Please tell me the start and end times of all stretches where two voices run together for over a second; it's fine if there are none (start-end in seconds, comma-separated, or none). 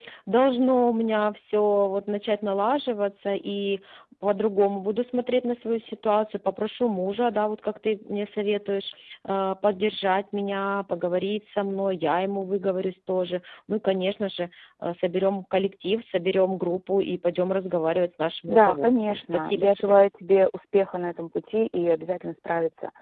18.5-19.9